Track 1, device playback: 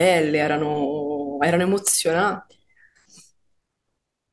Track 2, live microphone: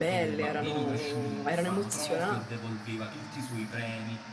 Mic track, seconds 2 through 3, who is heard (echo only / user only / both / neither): both